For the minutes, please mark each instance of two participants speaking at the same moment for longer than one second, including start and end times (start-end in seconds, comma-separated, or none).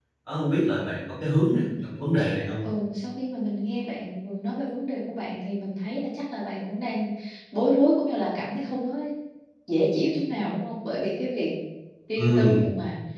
none